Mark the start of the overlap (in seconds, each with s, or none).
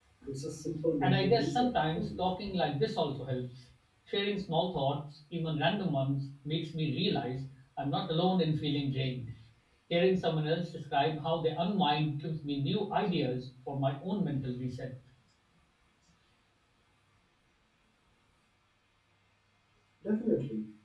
1.0 s